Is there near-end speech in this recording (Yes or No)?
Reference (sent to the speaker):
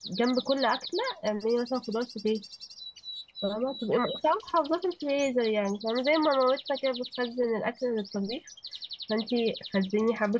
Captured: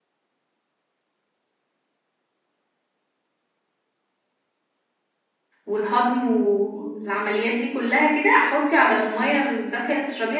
Yes